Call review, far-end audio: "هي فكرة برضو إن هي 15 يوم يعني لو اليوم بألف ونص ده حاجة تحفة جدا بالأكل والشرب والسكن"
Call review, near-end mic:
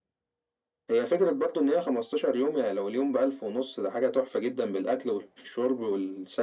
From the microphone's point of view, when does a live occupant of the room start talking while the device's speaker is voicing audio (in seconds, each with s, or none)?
none